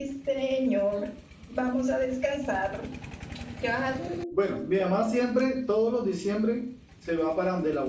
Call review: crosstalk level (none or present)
none